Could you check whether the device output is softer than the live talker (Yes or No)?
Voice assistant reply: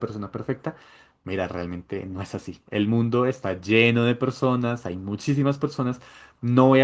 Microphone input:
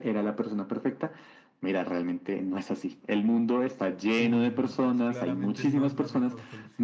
No